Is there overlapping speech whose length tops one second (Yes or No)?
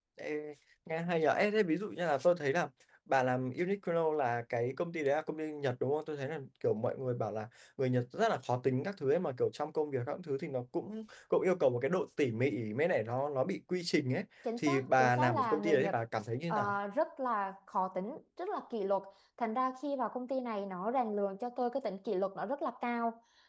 Yes